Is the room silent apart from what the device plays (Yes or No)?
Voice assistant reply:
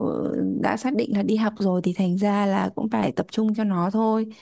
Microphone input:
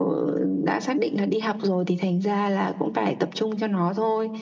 Yes